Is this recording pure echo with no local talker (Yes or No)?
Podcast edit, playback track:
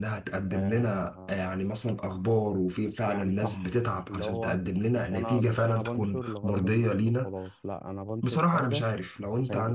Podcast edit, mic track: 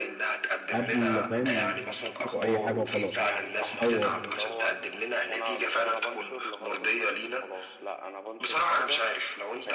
No